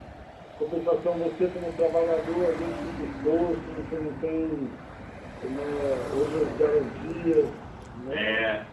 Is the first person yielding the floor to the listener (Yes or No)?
Yes